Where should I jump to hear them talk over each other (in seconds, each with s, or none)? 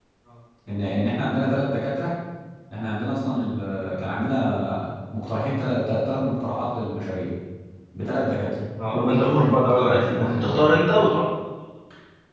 8.8 s